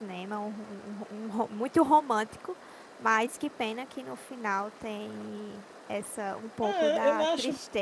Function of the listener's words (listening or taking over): taking over